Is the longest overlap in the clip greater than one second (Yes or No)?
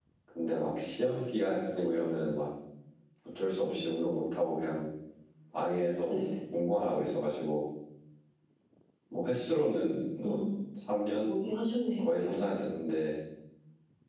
No